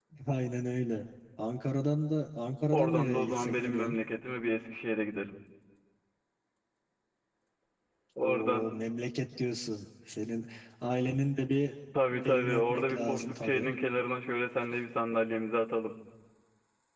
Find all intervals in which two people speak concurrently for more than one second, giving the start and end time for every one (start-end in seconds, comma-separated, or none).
2.7-4.0, 12.2-13.7